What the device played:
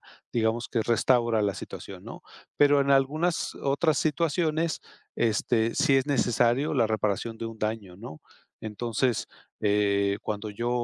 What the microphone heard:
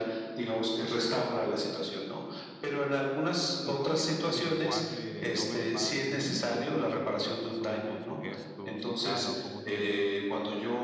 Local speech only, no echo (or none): ¿tú consideras que el lenguaje no verbal, cómo se expresa, cómo se expresa la persona con su gesto, su cara o cómo te ve,